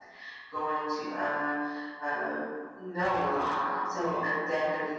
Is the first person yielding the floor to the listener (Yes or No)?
No